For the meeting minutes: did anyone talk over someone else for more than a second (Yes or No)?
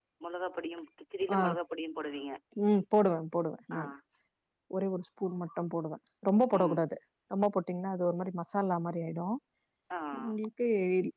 No